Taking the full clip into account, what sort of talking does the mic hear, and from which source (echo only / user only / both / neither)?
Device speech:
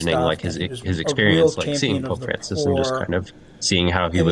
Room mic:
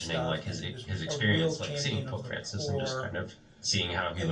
echo only